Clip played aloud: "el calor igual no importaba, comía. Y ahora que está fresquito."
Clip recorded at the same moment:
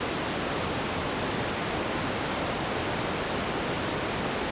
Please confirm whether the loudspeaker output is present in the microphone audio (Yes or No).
No